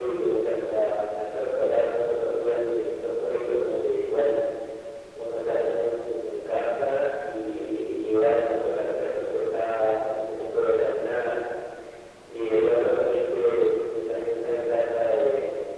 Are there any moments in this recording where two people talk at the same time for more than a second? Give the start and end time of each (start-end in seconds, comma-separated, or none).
none